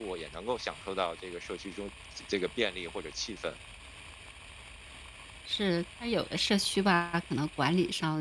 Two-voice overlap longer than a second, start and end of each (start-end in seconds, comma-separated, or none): none